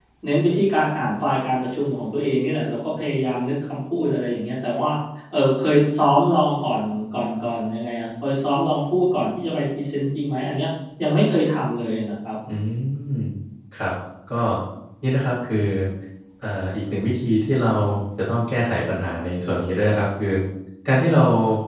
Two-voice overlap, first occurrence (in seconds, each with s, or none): none